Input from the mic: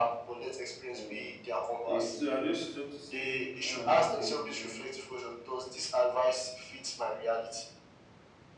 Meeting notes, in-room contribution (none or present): present